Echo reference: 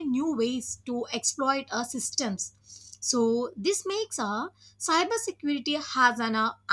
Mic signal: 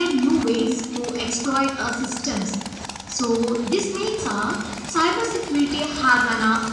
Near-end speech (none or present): none